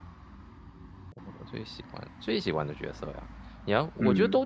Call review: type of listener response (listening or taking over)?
listening